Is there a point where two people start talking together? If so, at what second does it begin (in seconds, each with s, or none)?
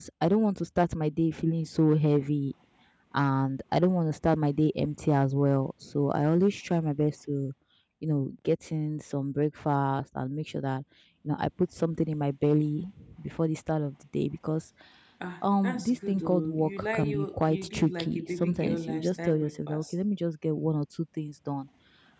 15.6 s